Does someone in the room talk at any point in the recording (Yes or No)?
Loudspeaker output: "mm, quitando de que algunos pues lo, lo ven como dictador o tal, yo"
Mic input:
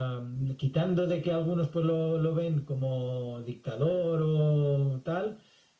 No